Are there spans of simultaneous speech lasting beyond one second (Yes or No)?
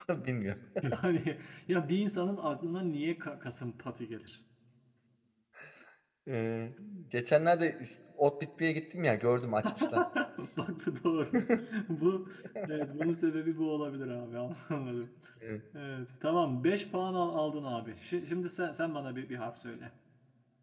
No